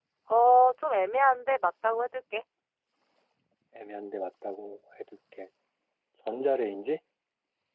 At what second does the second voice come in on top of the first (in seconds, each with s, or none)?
none